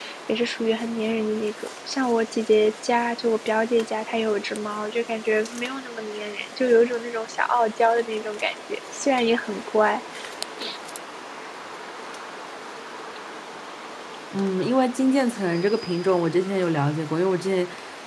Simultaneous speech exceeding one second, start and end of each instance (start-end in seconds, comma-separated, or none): none